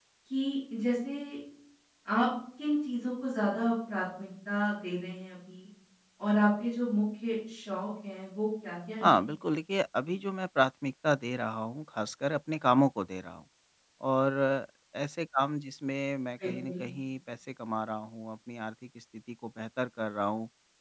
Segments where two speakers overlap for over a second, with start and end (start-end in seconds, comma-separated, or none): none